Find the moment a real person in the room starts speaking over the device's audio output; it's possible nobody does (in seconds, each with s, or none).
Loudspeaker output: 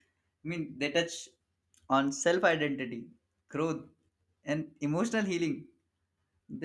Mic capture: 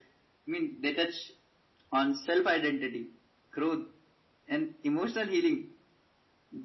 none